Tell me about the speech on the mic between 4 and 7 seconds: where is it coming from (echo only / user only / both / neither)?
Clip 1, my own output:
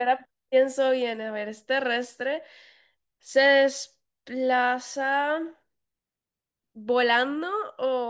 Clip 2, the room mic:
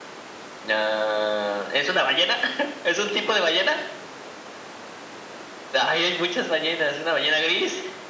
user only